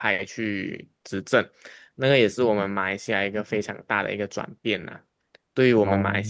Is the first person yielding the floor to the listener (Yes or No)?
No